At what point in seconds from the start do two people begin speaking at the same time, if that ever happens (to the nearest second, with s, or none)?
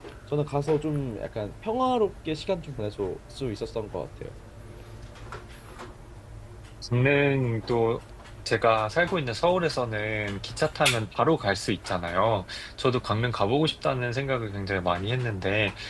none